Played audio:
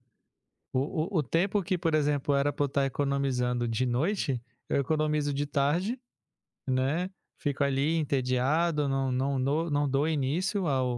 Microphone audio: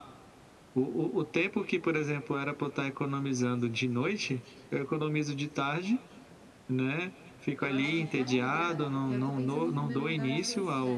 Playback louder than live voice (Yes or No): Yes